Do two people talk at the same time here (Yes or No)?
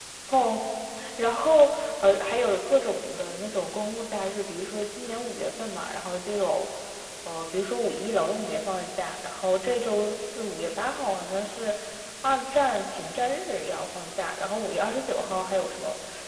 No